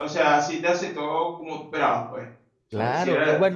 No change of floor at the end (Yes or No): No